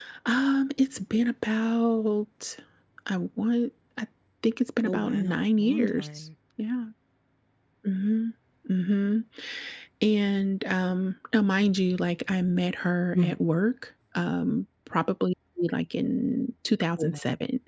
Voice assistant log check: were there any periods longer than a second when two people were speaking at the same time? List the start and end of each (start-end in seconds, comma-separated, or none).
4.8-6.1